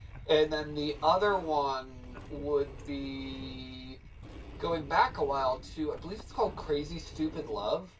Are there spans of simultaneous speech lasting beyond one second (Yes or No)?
No